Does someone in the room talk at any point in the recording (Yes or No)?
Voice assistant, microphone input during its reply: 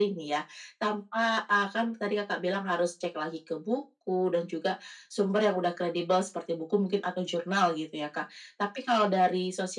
No